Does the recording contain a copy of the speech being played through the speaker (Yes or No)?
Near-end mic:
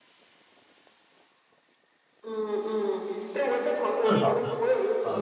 Yes